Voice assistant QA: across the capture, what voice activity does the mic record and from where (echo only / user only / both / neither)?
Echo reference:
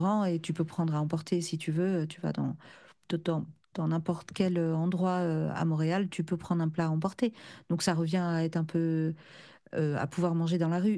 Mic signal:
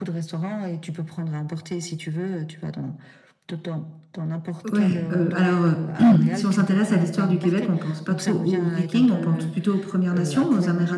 both